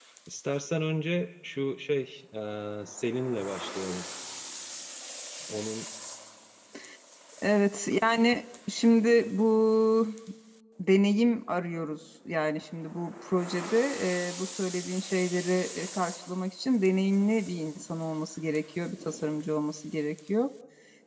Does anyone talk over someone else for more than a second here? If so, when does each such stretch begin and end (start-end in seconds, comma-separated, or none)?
none